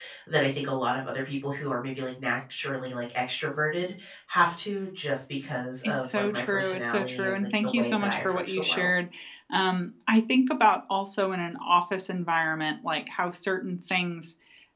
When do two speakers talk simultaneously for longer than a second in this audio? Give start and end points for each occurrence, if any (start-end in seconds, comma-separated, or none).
5.8-8.9